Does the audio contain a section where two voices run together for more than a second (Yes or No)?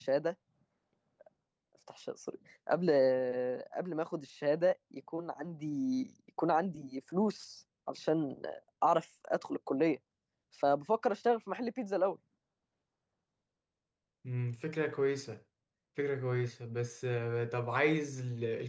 No